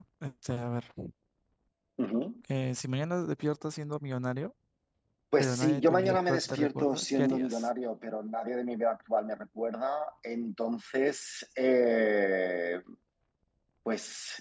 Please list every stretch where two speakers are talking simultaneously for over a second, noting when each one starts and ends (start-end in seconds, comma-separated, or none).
5.4-7.7